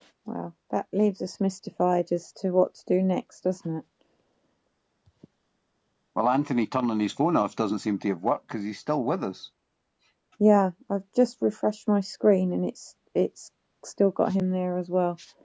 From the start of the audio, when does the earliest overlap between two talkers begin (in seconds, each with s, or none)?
none